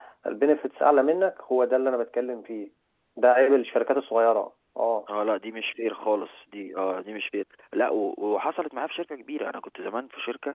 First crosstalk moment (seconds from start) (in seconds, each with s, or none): none